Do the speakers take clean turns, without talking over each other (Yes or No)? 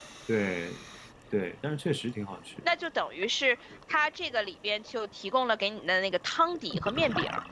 Yes